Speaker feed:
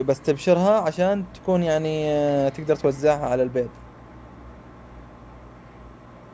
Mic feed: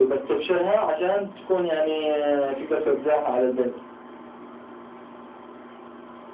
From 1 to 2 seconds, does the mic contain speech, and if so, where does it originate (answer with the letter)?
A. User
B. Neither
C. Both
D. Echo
D